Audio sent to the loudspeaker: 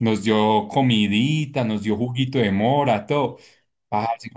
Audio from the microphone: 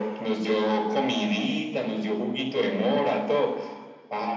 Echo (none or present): present